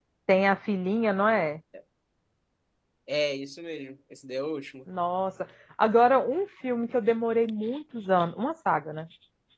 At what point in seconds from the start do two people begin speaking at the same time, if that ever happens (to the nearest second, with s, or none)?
none